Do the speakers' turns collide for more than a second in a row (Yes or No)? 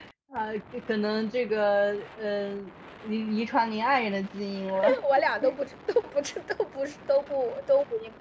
No